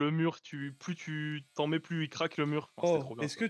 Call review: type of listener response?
taking over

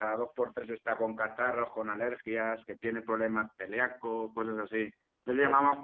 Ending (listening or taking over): listening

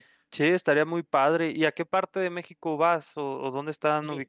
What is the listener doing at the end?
taking over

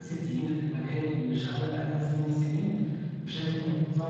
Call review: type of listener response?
listening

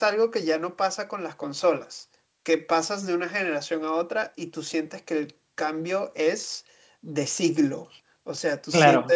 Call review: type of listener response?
listening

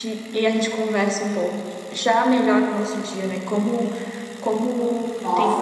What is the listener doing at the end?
taking over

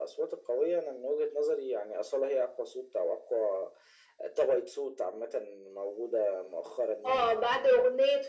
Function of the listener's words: taking over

